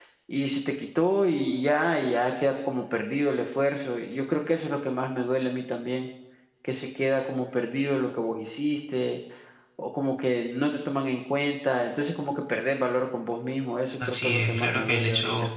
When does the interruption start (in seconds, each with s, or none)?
14.0 s